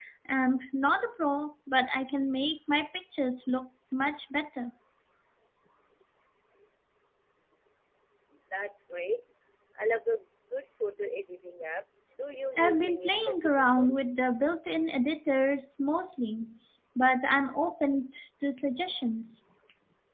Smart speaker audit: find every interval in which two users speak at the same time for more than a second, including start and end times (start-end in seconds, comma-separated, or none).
12.6-13.9